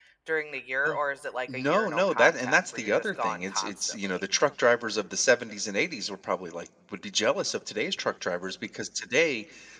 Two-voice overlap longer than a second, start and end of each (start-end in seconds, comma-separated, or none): 1.5-4.2